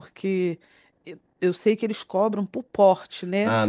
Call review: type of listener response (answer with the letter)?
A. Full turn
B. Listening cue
A